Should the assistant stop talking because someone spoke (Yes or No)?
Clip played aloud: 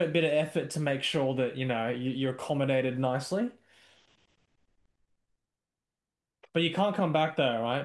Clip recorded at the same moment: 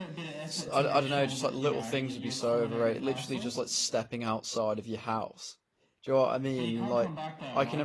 Yes